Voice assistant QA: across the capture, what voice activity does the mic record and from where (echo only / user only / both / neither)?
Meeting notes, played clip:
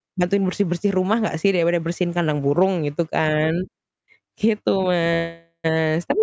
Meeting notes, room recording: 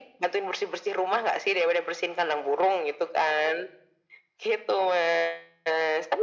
echo only